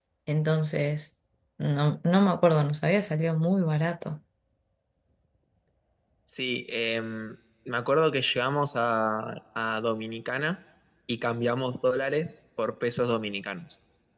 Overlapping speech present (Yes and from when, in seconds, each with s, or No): No